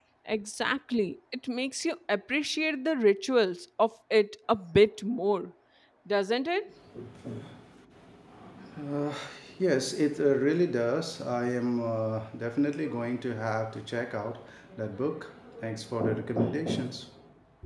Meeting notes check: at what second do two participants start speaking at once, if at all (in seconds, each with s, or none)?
none